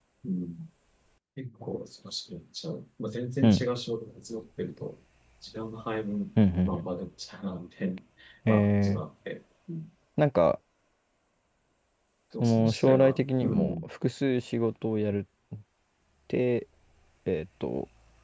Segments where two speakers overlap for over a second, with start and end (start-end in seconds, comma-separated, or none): 12.4-13.9